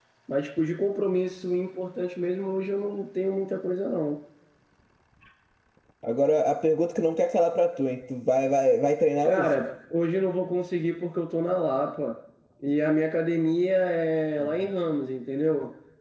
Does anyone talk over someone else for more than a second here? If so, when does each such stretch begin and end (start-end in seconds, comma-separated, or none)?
none